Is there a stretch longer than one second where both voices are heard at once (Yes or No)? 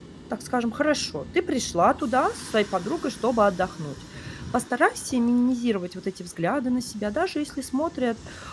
No